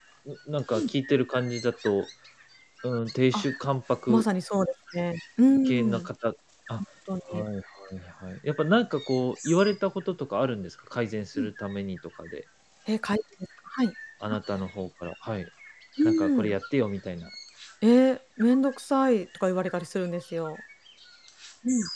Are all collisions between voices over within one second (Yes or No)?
Yes